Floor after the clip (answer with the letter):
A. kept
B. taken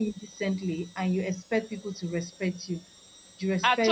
A